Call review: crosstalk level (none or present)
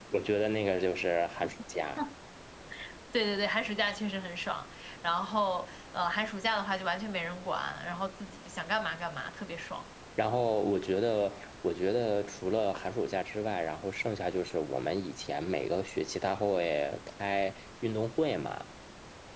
none